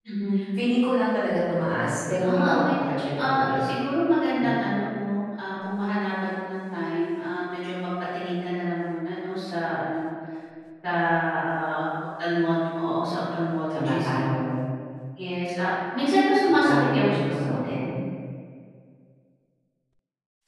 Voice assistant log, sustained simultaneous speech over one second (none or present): present